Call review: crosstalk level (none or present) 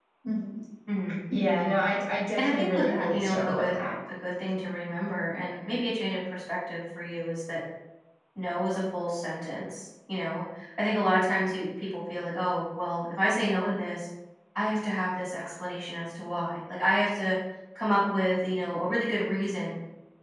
present